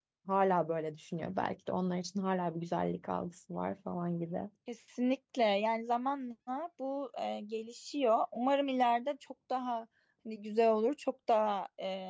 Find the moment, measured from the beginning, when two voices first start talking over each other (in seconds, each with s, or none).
none